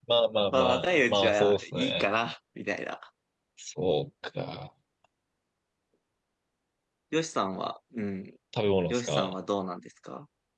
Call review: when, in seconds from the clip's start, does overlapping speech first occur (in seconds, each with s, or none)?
0.5 s